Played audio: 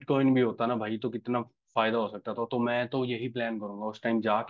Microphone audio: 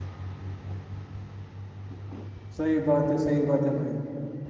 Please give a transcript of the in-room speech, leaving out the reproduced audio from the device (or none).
सही बात है सही बात है भाई